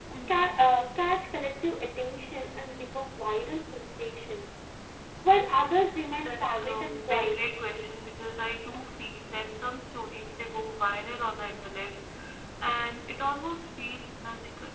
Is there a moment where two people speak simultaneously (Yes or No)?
Yes